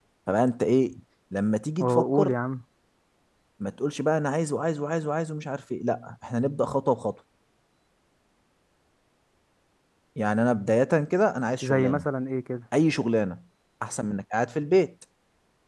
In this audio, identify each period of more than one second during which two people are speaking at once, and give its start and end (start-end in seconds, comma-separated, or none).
none